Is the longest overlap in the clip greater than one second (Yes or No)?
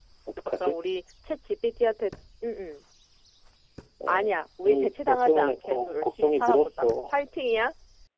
Yes